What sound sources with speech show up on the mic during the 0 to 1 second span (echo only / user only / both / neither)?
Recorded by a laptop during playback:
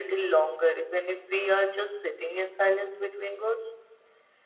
echo only